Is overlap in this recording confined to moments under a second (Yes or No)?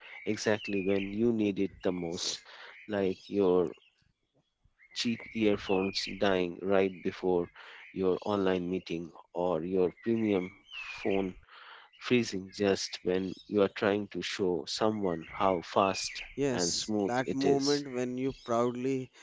No